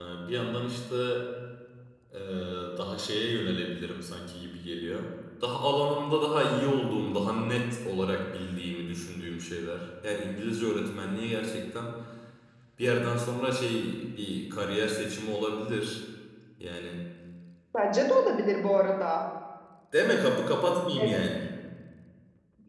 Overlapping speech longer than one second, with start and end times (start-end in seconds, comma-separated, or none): none